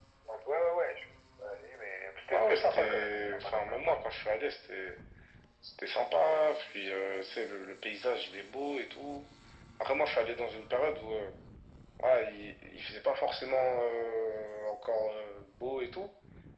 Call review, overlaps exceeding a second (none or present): present